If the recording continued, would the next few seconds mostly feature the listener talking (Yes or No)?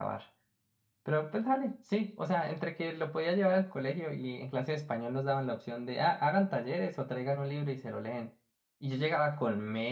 No